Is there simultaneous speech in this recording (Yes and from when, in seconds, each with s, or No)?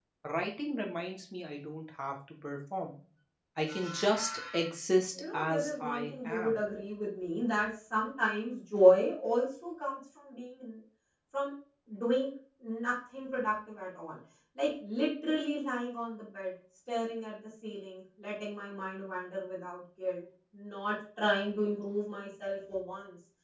Yes, from 5.1 s